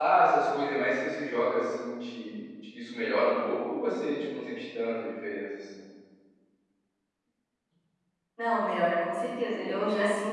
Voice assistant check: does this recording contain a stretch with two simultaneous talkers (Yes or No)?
No